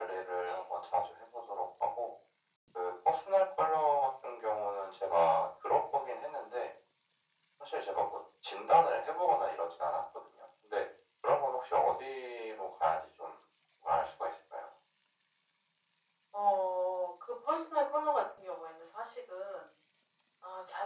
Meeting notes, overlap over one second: none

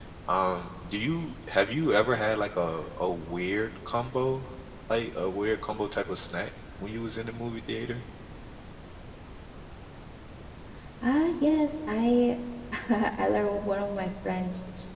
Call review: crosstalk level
none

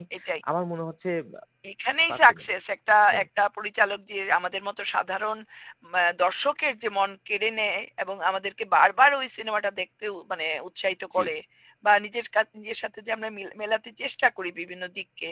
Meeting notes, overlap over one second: none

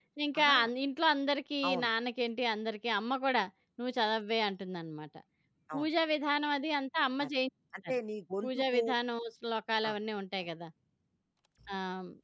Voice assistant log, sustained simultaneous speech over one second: none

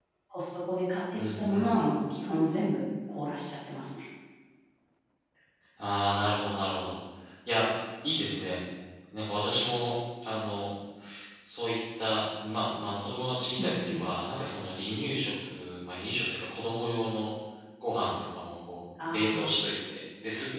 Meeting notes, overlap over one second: none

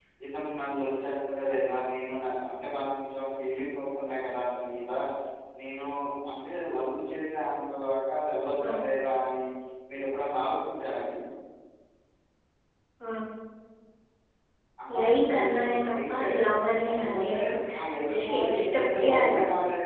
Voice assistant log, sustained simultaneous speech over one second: present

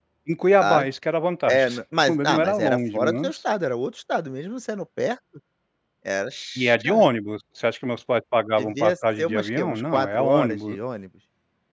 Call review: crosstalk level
present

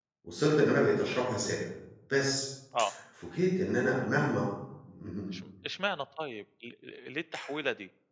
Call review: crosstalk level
none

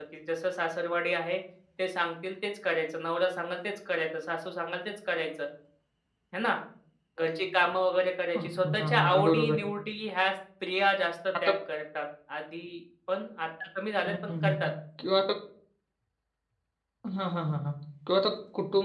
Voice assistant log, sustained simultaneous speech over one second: present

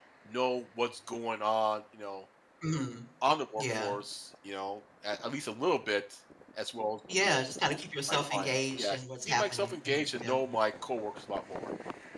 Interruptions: present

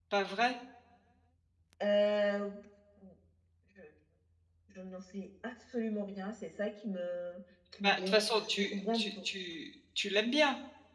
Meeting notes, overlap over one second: present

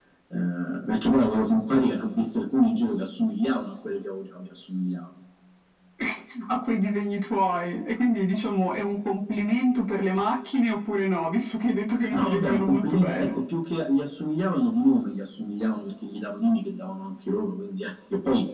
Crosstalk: present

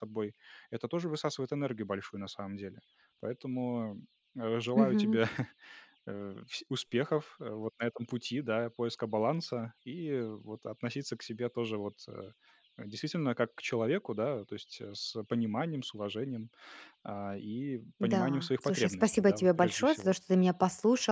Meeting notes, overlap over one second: present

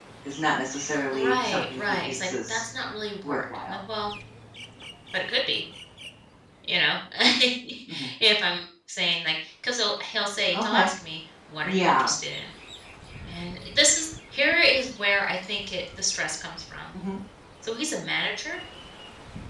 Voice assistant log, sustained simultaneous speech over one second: present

